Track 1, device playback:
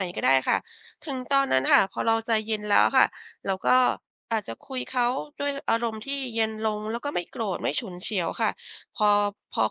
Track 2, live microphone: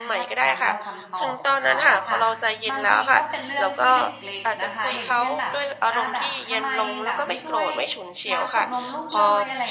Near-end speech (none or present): present